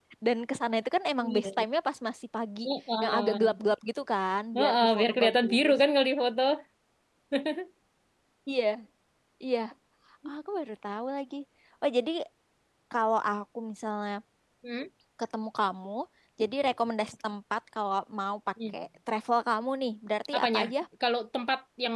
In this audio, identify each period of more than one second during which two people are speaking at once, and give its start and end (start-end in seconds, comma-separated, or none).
4.6-5.8